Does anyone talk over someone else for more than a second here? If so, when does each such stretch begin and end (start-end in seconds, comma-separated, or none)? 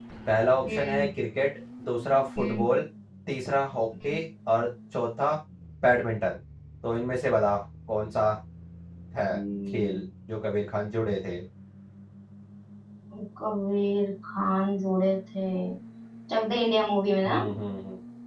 none